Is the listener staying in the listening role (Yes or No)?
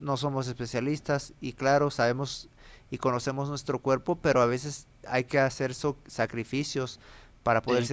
Yes